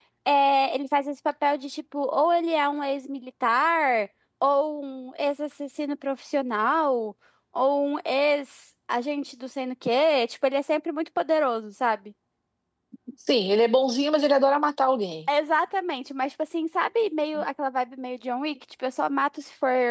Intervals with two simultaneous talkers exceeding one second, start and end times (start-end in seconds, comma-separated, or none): none